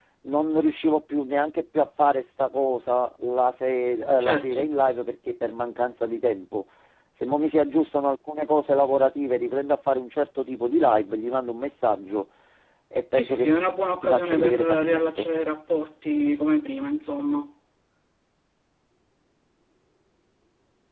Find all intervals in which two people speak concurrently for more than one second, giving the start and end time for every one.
14.0-15.3

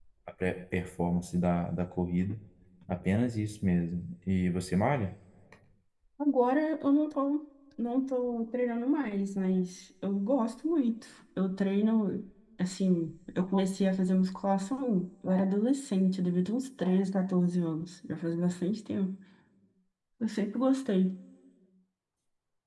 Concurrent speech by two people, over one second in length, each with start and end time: none

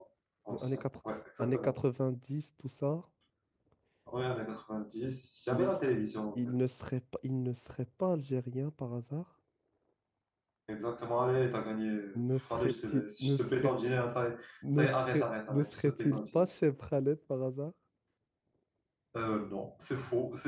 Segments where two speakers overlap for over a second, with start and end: 12.1-13.8, 14.7-16.5

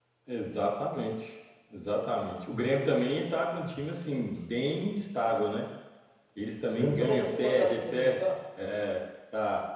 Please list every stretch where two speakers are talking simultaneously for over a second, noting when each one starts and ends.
6.7-8.3

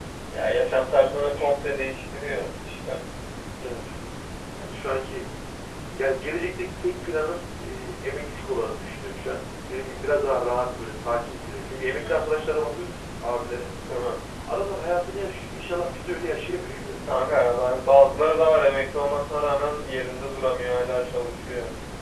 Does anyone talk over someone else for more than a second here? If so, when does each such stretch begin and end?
none

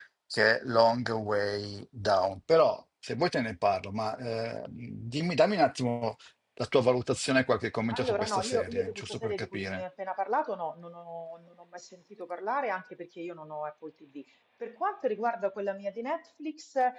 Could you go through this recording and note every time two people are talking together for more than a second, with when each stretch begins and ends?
7.9-9.8

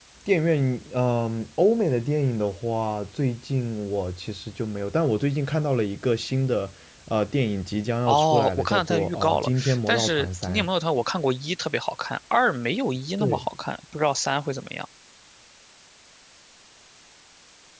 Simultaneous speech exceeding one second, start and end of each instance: 8.1-10.6

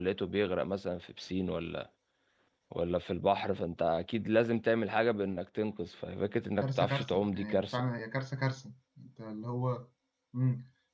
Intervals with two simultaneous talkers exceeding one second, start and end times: 6.6-7.8

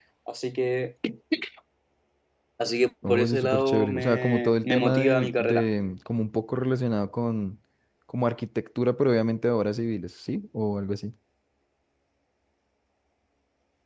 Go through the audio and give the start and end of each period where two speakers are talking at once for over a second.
3.1-5.7

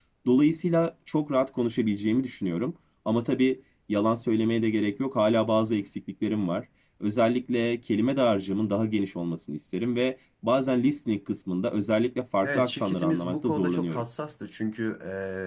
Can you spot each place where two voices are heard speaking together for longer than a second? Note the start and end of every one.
12.4-14.0

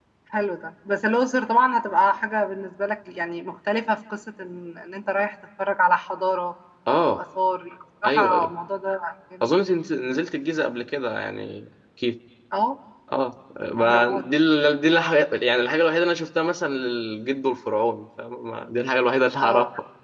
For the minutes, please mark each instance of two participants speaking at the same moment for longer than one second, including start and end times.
none

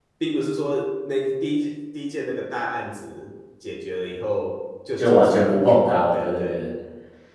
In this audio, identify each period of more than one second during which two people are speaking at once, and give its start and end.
5.0-6.6

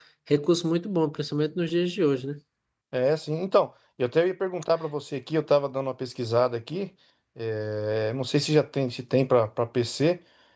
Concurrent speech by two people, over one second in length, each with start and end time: none

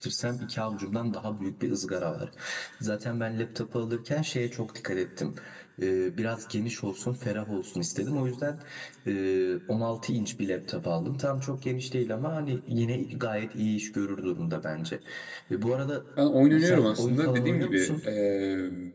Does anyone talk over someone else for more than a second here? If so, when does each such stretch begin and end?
16.6-18.1

